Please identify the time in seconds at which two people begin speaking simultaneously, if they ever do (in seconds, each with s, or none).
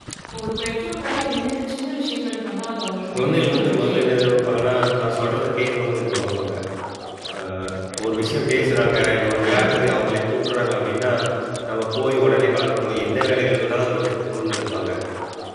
3.1 s